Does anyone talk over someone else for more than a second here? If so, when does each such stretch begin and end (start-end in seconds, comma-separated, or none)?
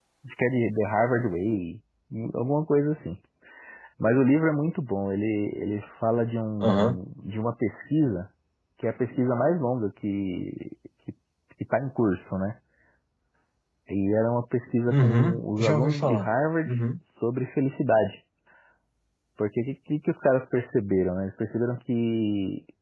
14.9-16.3